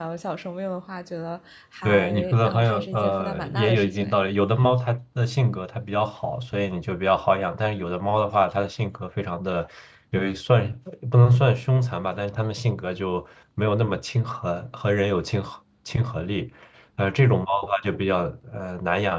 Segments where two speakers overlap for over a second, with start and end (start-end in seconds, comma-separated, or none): 1.8-4.2